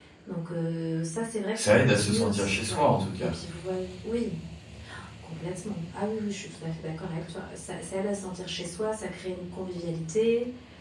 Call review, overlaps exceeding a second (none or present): present